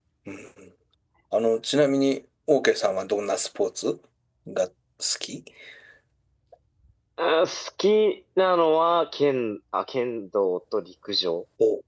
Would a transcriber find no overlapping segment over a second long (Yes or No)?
Yes